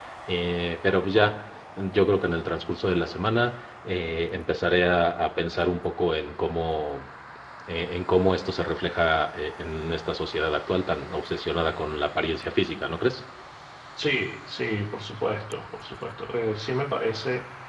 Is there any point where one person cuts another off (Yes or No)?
No